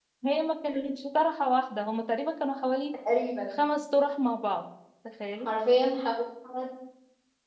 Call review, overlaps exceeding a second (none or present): none